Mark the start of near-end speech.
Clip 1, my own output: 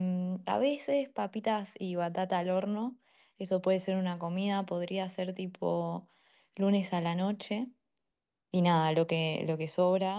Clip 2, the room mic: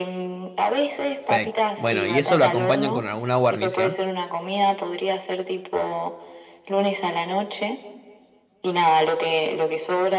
1.2 s

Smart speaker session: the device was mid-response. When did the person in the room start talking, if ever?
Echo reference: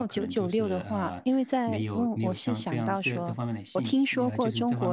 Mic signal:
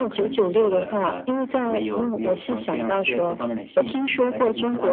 none

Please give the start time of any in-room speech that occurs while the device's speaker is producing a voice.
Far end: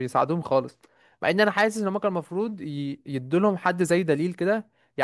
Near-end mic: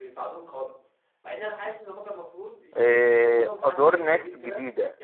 2.8 s

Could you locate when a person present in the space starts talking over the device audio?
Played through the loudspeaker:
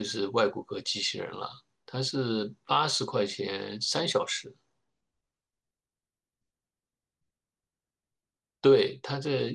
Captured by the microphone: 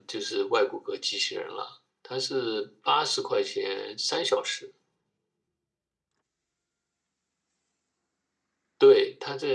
none

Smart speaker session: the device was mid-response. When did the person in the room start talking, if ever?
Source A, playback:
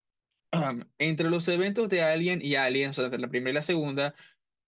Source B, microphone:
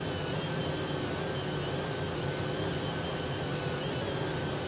none

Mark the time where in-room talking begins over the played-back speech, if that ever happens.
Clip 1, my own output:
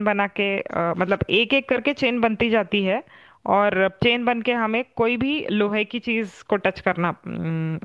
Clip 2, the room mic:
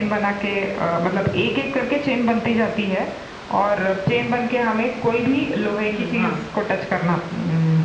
5.9 s

